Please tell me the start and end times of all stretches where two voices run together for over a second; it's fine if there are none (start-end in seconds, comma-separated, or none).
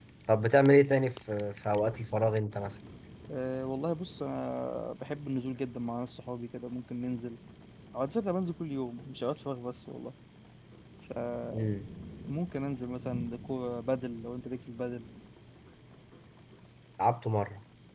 none